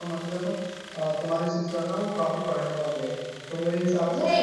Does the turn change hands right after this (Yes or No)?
Yes